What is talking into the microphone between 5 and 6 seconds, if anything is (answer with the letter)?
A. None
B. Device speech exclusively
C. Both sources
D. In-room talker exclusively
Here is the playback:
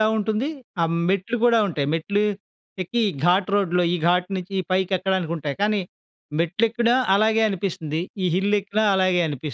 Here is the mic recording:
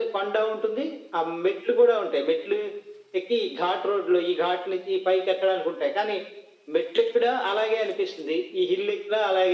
B